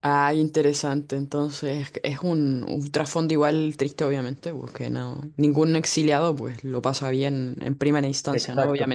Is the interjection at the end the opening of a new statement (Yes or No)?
No